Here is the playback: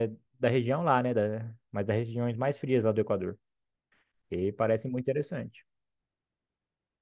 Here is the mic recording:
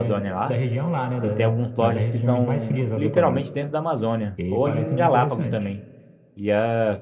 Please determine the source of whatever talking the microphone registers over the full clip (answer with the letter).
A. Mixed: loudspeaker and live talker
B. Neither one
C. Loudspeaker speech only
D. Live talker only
A